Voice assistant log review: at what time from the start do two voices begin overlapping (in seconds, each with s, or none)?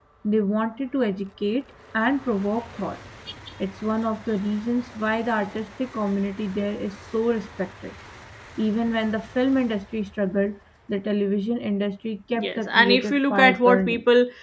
12.3 s